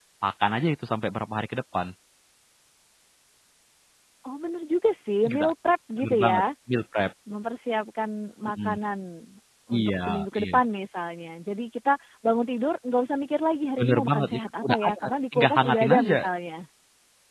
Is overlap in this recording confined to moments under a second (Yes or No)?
No